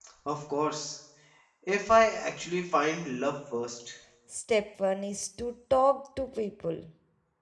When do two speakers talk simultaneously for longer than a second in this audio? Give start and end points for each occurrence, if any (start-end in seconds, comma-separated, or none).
none